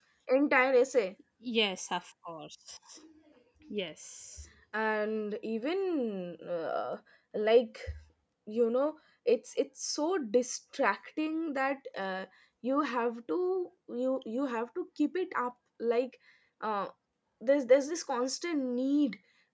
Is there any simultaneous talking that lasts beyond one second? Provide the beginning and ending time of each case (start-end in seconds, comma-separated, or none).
none